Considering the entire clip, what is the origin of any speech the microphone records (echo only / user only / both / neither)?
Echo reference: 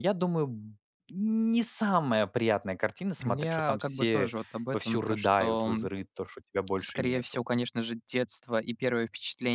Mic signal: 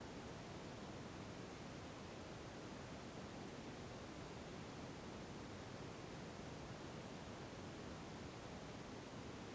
neither